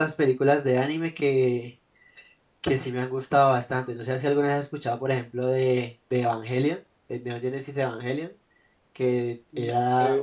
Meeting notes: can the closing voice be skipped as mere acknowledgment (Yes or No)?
Yes